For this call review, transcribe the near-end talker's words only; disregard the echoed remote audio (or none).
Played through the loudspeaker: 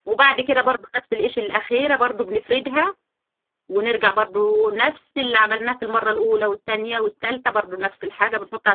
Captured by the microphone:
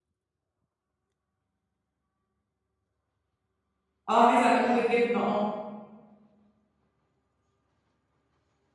اه عايزه اعملها بالجبنه اه